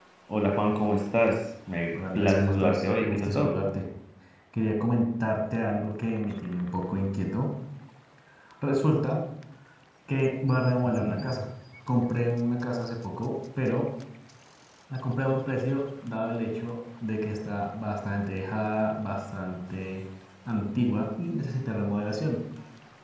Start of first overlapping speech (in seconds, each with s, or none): 2.1 s